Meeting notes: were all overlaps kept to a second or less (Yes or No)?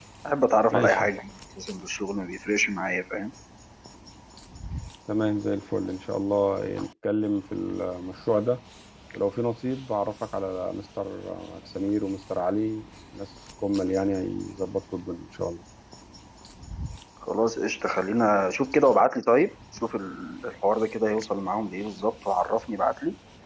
Yes